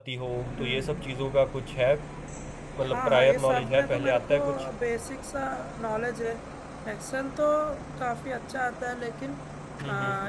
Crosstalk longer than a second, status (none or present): present